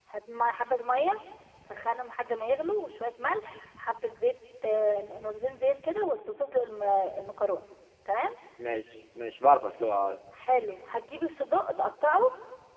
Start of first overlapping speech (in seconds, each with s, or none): none